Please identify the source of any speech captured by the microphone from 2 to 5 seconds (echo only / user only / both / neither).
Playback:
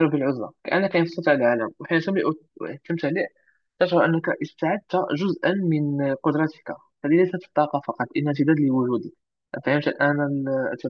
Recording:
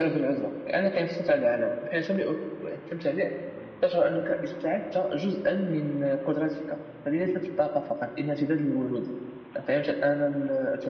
echo only